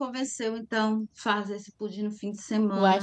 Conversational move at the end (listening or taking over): taking over